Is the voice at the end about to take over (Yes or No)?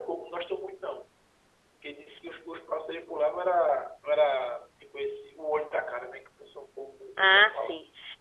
Yes